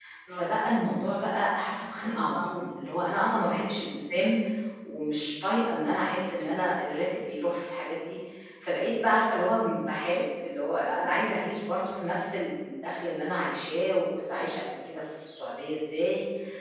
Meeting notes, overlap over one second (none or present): none